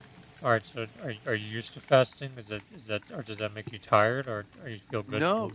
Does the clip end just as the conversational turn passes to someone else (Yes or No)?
Yes